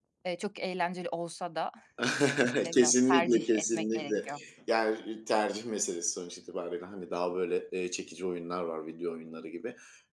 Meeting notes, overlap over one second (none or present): present